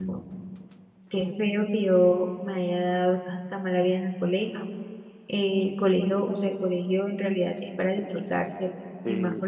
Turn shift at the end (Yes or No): No